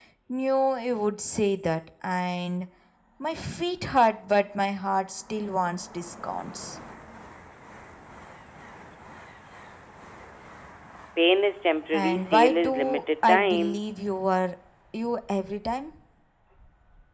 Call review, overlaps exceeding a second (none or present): present